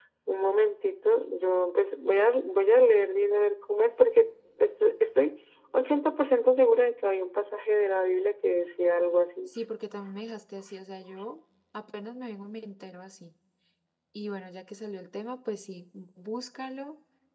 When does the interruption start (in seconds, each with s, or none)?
none